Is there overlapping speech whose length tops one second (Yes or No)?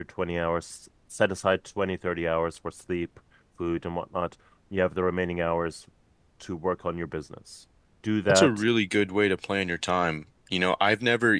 No